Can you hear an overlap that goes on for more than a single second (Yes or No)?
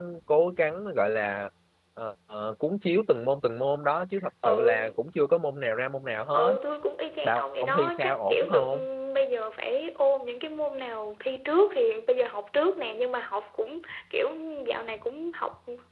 Yes